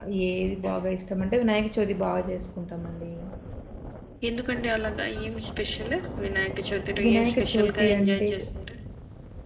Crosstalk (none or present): present